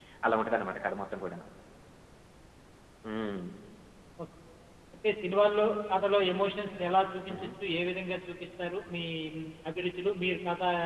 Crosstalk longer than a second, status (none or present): none